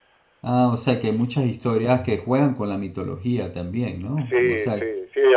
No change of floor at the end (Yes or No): No